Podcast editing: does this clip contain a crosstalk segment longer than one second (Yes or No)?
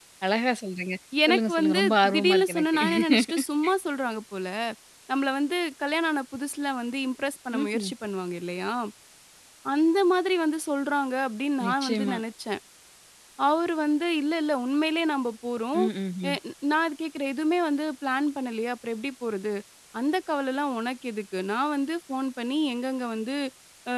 Yes